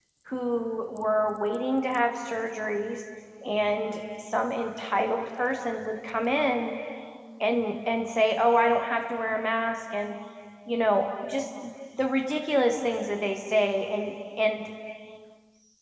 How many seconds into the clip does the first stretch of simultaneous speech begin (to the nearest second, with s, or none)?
none